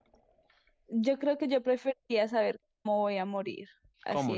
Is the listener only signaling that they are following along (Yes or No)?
Yes